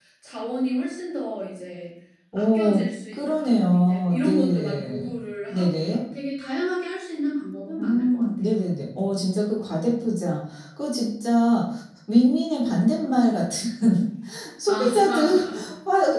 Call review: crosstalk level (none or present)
present